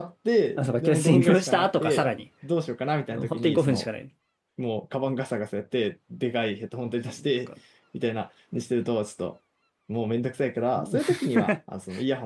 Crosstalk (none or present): present